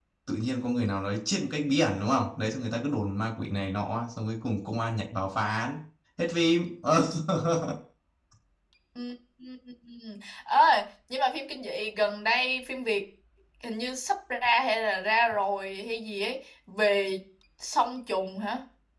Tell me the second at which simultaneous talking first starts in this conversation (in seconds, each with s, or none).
none